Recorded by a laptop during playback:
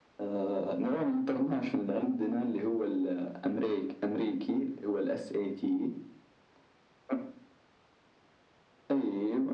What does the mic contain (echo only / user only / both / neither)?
echo only